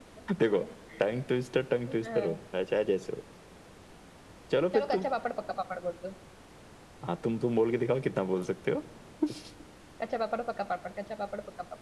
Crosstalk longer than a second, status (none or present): none